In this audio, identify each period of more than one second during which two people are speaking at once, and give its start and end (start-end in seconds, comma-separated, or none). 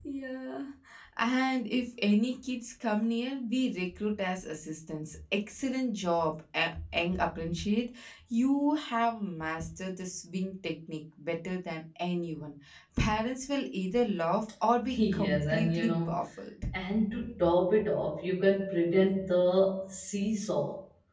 14.9-16.2